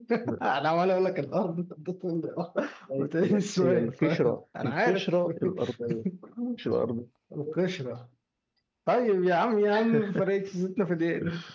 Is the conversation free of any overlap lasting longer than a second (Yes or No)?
No